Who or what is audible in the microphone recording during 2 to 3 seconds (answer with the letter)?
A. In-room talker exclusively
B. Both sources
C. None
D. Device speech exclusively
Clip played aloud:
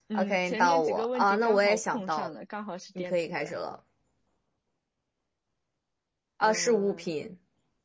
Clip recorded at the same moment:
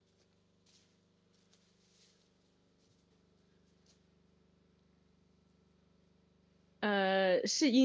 C